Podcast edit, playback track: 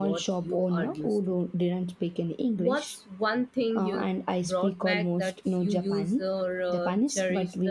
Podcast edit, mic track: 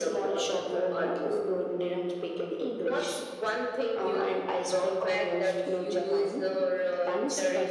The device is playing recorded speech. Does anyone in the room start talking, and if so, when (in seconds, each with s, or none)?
none